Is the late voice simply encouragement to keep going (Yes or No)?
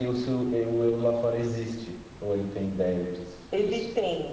No